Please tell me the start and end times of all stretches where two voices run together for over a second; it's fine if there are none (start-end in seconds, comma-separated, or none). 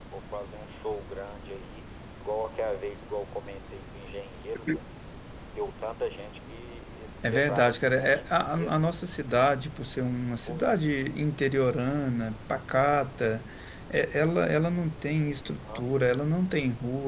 7.3-8.8